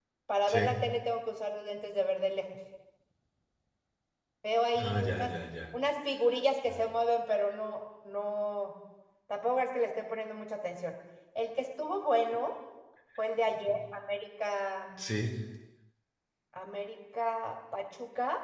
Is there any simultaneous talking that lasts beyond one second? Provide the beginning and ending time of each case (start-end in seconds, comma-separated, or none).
none